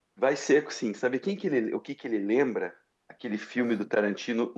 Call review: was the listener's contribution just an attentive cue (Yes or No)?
Yes